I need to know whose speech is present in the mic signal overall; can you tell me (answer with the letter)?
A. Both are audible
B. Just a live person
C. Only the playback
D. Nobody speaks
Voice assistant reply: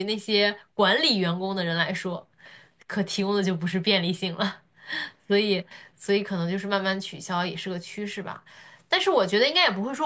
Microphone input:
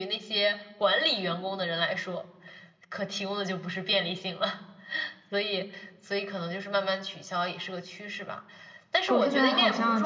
A